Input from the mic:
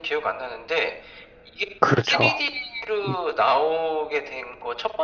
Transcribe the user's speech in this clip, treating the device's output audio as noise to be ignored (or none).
그렇죠. 이